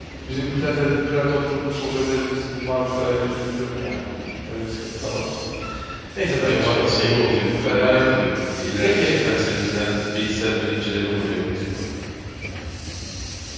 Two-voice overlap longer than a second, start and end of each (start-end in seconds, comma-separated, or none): 6.4-8.0